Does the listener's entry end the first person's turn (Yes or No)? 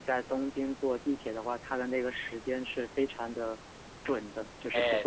Yes